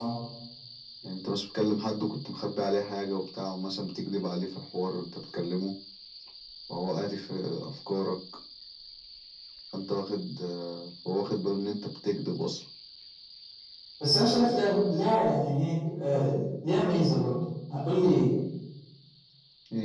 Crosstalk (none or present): none